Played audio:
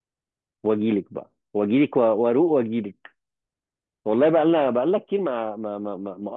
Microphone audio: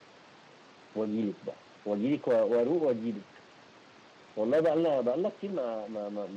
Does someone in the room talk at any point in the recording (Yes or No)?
No